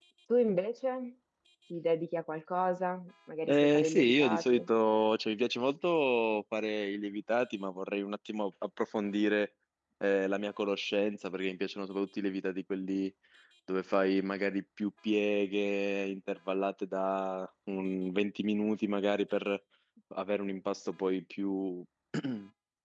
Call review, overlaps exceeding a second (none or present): present